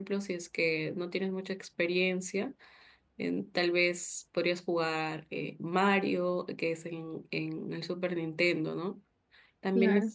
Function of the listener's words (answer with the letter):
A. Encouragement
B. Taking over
A